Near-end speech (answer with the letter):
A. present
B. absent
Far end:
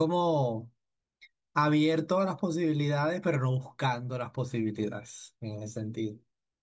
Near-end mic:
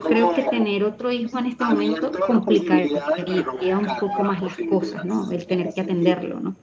A